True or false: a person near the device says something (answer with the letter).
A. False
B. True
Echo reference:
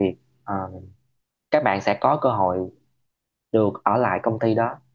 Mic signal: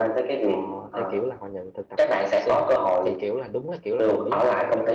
B